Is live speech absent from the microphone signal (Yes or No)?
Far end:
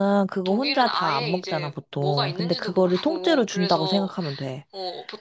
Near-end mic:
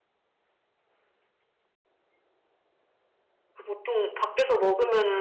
No